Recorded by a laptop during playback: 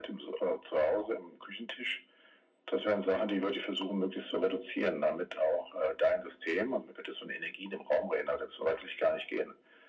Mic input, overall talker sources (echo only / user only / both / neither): echo only